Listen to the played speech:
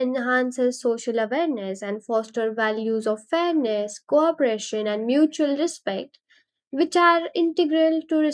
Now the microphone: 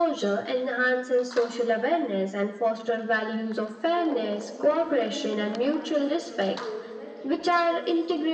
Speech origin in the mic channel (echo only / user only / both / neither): both